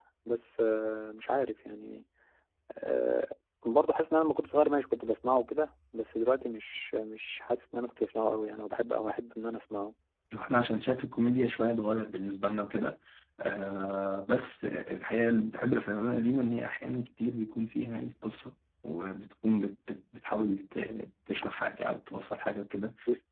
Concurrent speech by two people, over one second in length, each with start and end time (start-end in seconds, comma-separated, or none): none